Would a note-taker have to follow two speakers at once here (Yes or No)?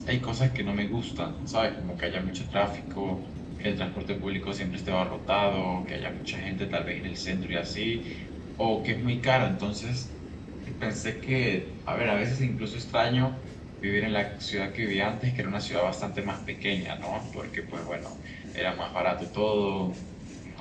No